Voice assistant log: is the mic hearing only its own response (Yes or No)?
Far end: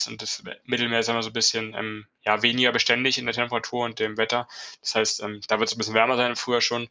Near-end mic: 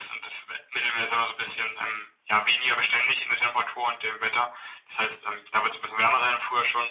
Yes